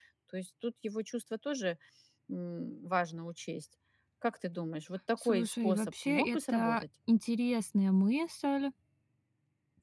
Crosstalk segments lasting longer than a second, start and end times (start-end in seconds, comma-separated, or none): 5.2-6.8